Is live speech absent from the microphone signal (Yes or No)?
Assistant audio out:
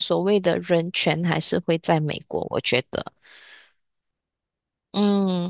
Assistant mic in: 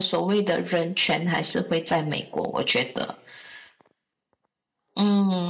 Yes